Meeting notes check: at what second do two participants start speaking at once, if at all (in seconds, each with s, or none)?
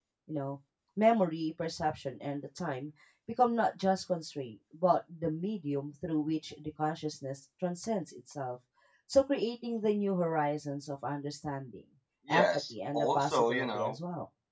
12.3 s